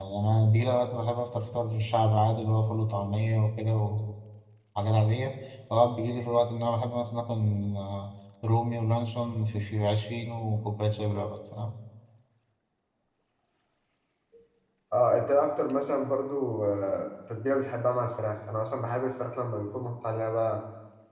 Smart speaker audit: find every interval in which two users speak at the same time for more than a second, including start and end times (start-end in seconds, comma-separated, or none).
none